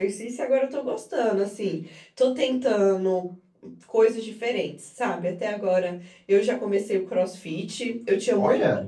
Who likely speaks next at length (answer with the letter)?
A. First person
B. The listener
A